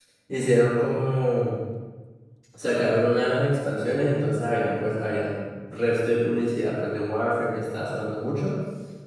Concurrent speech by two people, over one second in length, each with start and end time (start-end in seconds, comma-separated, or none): none